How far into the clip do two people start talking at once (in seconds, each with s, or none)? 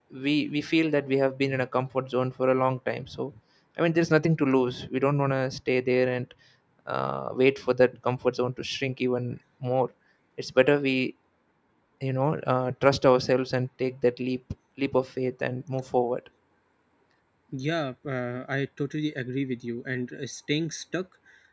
none